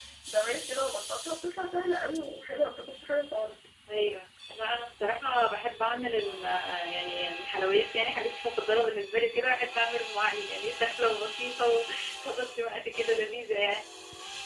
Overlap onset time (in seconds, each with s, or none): none